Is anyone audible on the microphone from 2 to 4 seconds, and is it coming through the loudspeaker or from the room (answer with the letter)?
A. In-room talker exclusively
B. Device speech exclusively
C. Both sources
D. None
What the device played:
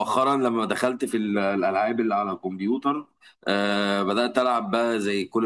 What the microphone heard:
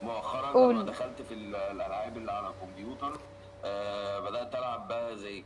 B